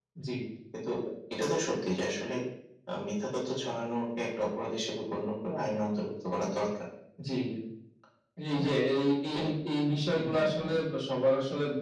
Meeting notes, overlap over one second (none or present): none